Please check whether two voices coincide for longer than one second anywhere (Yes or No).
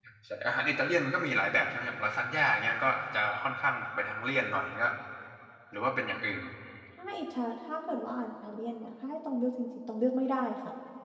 No